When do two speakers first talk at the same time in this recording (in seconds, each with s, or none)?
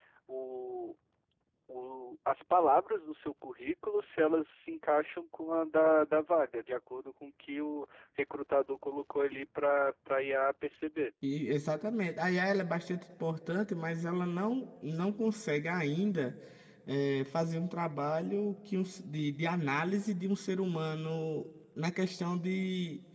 none